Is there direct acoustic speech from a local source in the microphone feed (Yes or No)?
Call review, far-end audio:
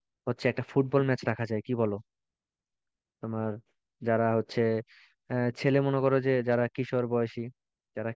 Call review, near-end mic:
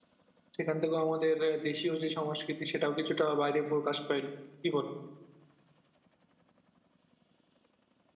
Yes